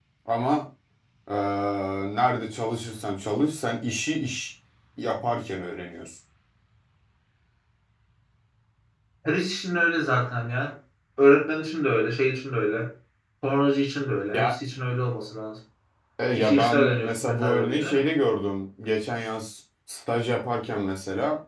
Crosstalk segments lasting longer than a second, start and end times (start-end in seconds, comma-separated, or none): 16.4-18.1